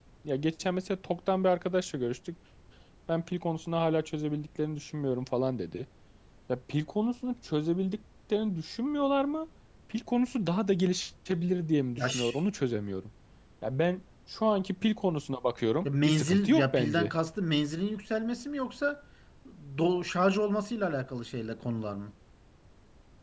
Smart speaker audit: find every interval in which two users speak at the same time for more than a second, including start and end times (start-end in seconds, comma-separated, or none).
15.8-17.1